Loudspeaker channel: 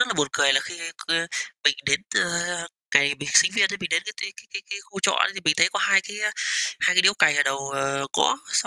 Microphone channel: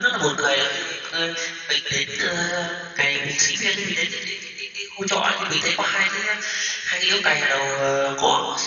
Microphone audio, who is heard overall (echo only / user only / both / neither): echo only